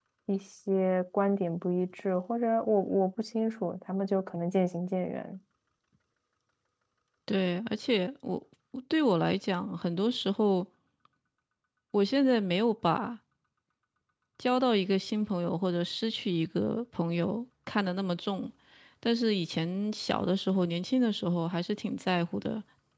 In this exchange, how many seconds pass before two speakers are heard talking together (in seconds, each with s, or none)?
none